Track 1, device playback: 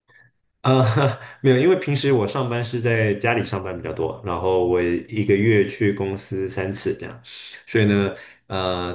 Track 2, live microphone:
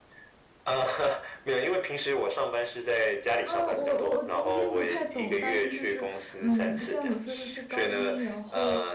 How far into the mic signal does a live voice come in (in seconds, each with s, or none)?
3.4 s